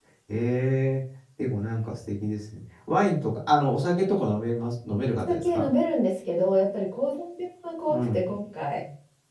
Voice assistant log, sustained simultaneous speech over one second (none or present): none